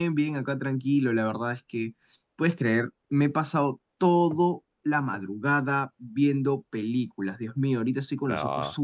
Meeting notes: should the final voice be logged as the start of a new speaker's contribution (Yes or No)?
No